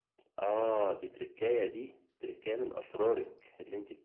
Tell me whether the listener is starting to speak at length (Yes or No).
No